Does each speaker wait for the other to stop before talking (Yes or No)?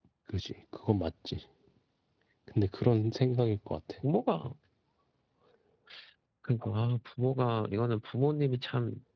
Yes